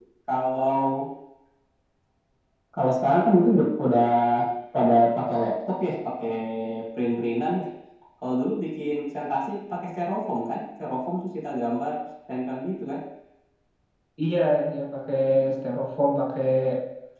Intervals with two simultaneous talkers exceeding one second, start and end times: none

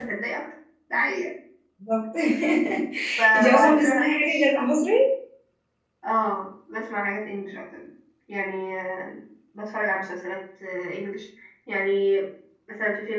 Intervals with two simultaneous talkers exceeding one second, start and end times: 3.3-4.7

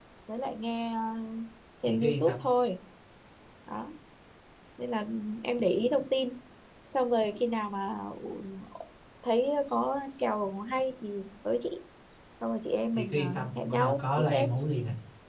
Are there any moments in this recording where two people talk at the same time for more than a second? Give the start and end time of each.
12.9-14.5

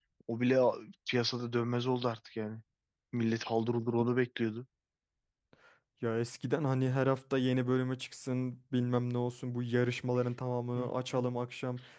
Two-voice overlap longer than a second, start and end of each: none

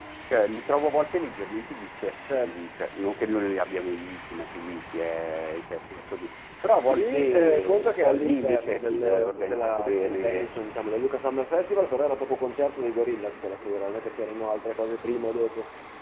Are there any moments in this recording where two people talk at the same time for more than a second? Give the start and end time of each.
6.9-10.5

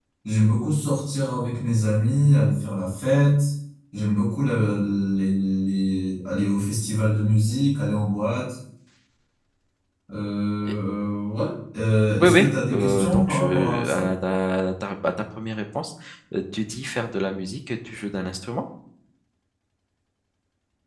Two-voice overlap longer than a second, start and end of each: 12.2-14.1

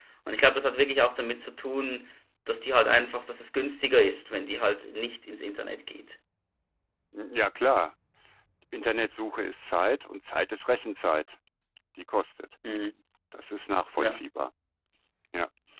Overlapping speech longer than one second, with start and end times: none

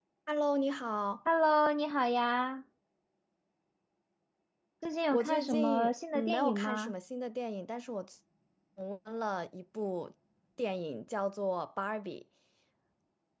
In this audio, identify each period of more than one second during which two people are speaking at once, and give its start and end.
5.1-6.9

